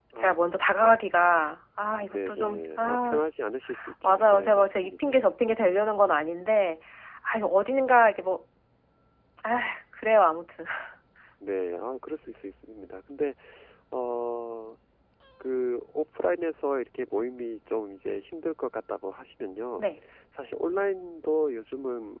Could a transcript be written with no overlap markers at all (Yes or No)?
No